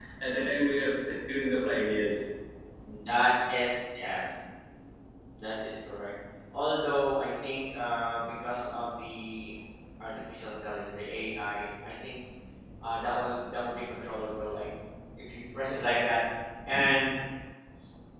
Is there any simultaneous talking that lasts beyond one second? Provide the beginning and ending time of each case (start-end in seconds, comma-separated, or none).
none